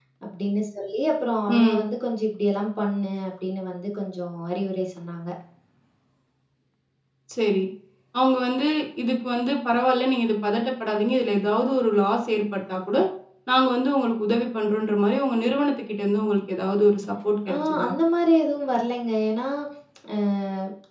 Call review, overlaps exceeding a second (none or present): none